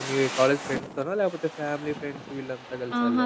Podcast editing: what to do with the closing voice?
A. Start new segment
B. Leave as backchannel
A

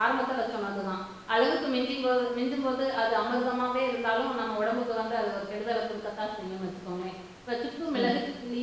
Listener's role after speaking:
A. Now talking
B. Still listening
B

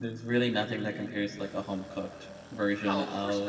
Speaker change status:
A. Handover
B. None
A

